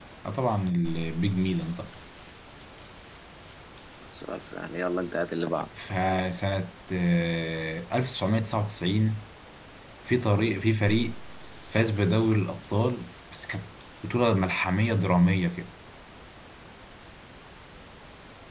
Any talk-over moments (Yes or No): No